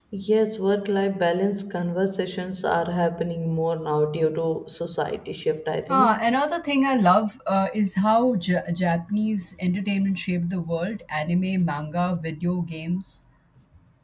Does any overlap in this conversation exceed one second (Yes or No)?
No